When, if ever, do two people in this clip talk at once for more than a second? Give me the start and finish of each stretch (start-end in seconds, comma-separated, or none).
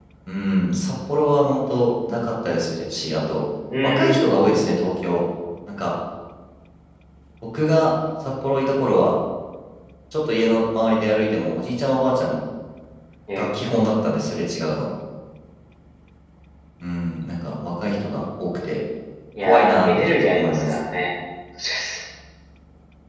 19.4-20.8